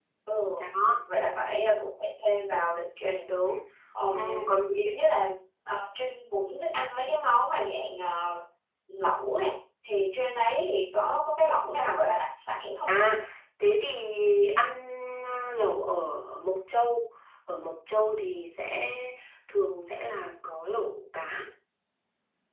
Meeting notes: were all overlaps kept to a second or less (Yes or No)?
Yes